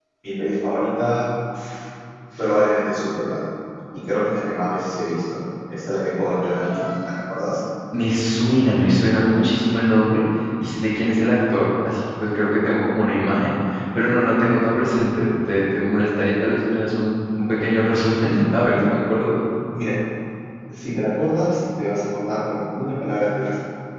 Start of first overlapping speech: none

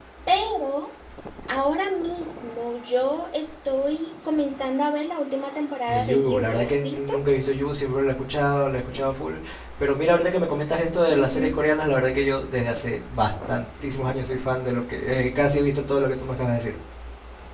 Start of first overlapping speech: 6 s

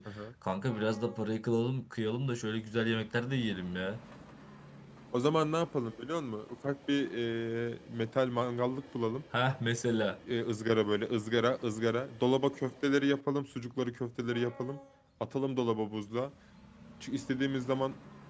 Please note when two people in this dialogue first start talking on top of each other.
none

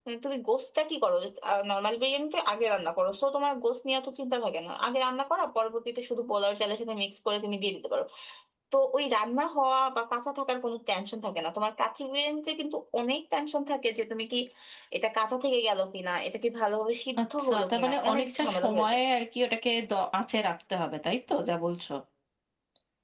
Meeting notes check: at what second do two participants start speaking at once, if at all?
17 s

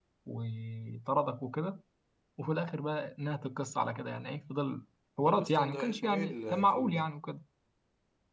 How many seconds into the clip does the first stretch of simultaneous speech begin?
5 s

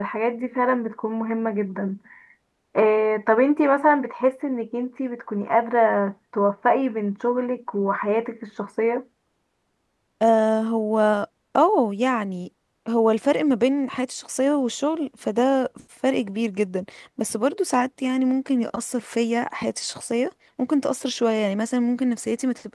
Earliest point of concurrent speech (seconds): none

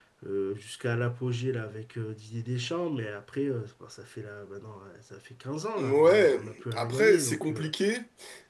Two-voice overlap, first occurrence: 6 s

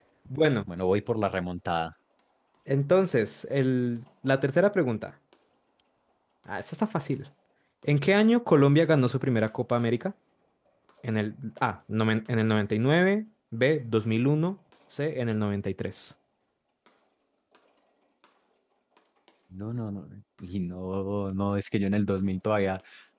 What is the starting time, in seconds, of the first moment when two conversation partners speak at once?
none

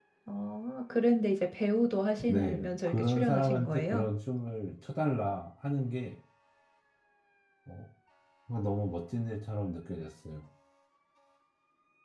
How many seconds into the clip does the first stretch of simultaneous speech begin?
2 s

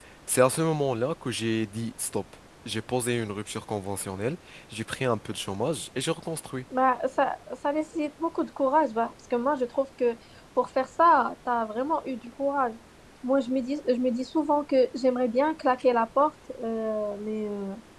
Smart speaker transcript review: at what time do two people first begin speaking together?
none

